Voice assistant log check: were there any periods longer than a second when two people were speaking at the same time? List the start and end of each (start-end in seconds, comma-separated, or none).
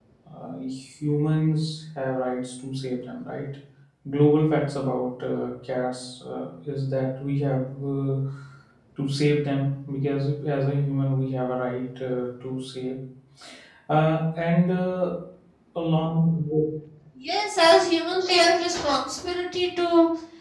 none